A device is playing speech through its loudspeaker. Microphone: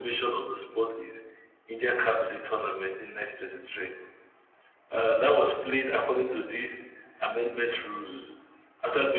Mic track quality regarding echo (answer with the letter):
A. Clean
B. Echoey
B